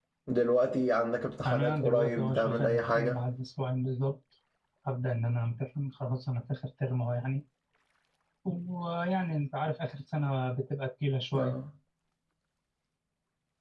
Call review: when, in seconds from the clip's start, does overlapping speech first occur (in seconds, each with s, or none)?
1.4 s